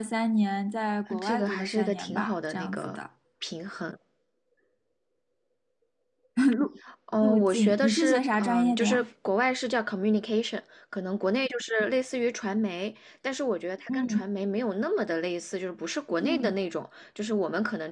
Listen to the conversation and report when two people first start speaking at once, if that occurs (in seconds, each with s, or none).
1.1 s